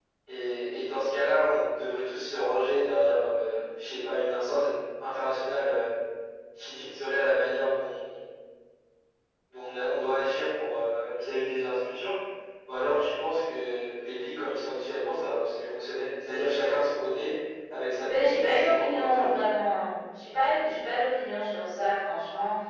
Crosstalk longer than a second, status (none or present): present